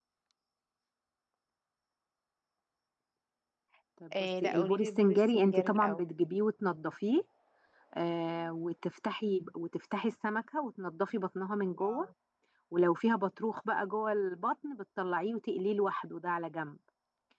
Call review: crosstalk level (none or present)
present